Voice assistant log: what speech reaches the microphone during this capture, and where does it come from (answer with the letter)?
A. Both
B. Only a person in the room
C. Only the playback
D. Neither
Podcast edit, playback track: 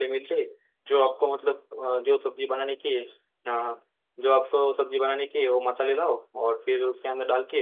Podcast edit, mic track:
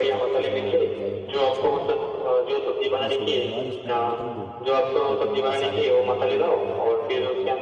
A